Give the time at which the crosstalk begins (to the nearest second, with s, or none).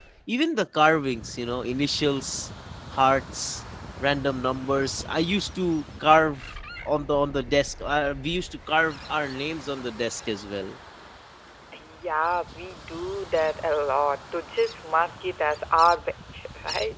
none